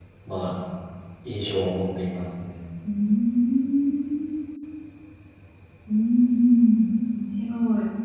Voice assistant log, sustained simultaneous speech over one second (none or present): none